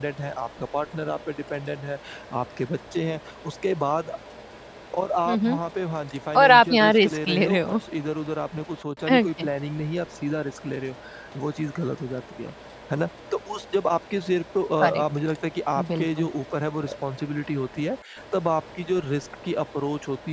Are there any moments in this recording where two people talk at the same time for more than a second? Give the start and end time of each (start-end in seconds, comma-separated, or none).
6.3-7.6